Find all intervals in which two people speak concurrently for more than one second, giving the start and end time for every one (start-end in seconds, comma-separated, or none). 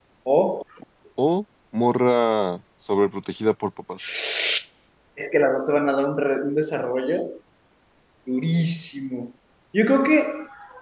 none